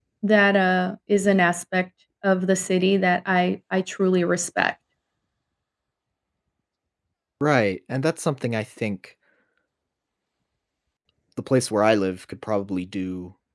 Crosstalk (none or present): none